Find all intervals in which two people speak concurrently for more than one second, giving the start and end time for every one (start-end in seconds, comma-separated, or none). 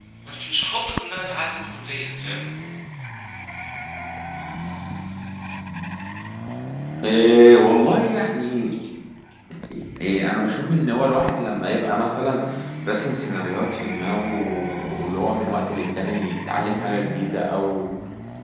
none